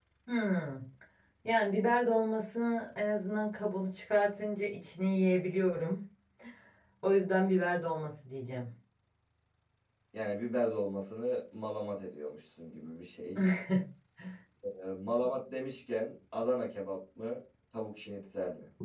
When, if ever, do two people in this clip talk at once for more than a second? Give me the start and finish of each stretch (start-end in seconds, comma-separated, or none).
none